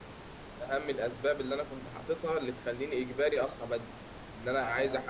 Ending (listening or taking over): listening